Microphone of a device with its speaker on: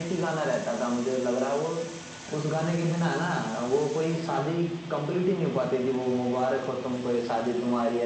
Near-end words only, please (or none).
none